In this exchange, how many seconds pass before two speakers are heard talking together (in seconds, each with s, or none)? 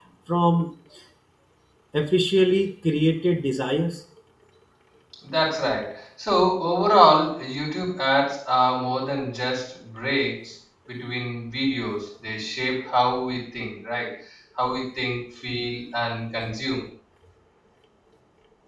none